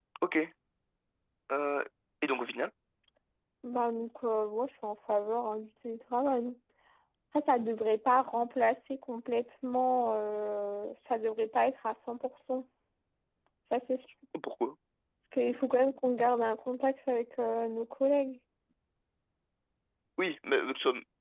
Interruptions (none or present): none